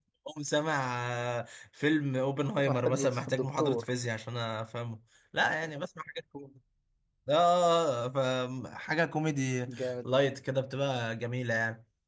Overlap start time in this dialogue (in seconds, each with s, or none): 2.7 s